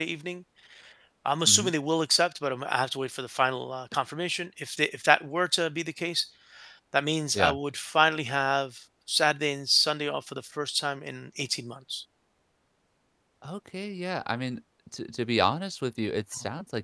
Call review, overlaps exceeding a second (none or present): none